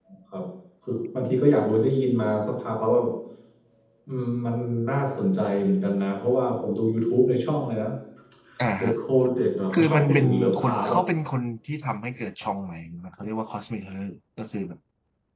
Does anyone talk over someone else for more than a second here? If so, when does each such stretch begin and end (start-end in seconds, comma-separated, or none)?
9.7-11.0